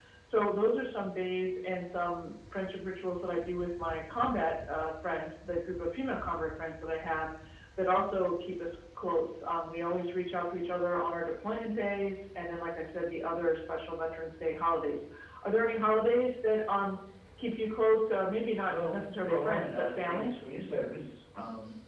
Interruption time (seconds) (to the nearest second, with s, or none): 19 s